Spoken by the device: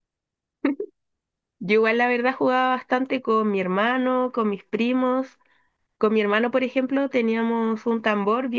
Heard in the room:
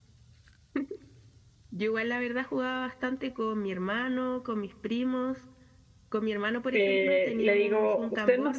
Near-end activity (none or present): present